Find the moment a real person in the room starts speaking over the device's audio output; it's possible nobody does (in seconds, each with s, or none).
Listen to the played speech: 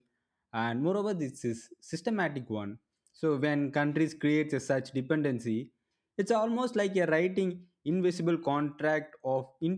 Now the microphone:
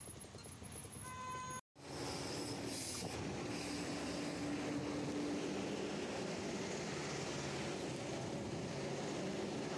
none